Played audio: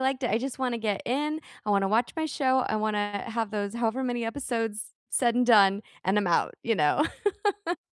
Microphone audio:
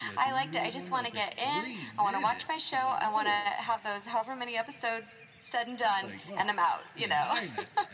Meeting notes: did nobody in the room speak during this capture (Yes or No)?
No